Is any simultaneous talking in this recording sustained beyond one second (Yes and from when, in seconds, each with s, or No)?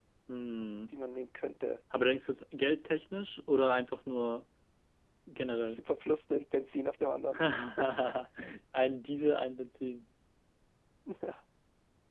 No